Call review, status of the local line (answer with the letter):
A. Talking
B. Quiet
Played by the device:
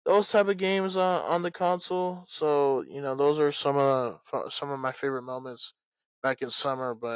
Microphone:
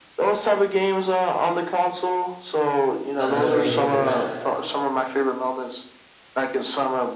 A